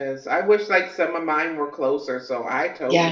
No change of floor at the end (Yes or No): No